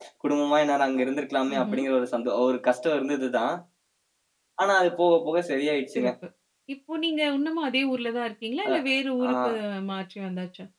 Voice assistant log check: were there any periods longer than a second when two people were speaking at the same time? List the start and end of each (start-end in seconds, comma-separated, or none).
none